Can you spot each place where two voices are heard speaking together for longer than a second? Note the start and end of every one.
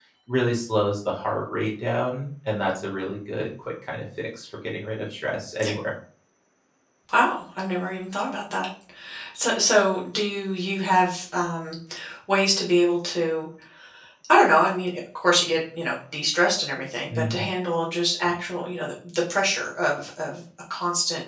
none

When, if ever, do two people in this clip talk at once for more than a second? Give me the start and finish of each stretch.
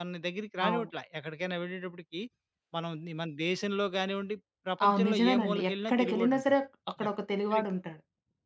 4.9-6.5

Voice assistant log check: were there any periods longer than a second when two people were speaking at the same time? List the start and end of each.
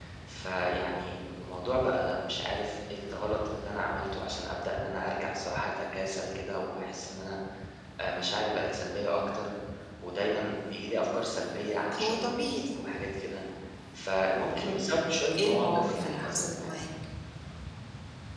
15.4-16.8

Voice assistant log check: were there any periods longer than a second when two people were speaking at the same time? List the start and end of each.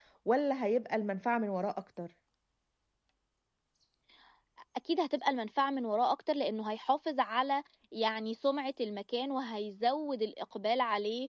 none

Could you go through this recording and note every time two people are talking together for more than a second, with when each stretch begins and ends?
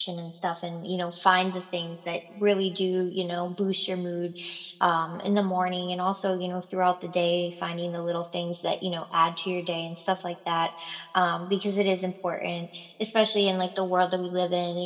none

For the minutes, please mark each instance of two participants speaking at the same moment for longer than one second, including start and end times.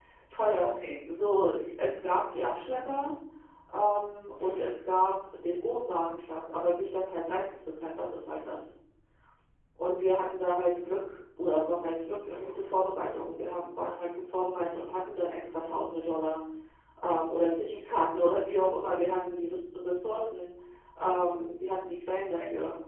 none

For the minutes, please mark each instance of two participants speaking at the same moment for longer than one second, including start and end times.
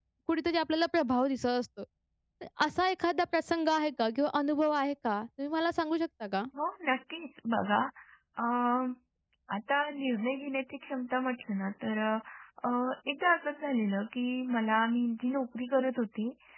none

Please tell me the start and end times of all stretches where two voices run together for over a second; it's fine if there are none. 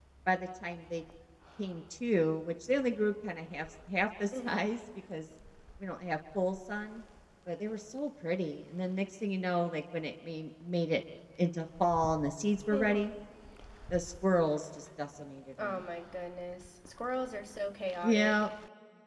none

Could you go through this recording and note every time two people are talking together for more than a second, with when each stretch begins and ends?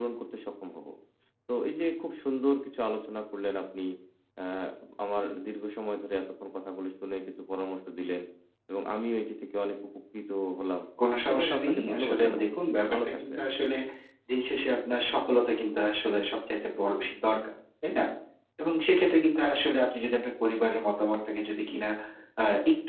11.2-12.6

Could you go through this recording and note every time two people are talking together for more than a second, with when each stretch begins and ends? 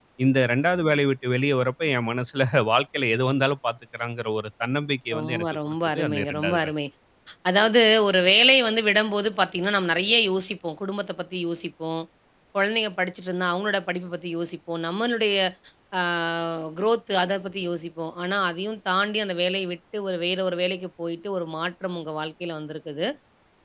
5.1-6.7

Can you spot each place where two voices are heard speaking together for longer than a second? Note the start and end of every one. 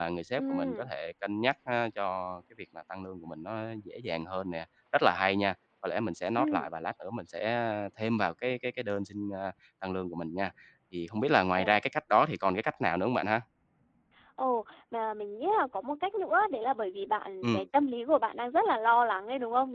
none

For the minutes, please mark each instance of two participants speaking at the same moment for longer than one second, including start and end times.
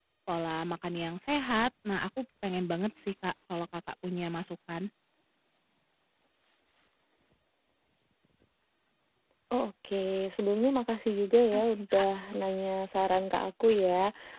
none

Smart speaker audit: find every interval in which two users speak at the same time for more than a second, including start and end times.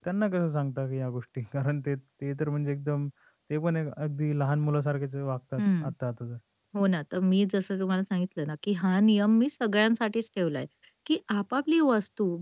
none

